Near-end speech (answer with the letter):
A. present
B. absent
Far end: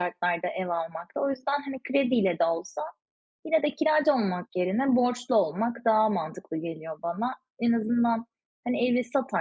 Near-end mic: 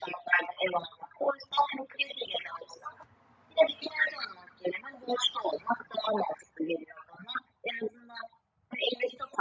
B